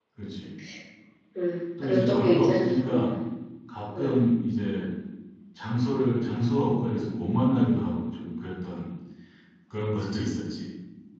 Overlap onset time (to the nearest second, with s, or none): 2 s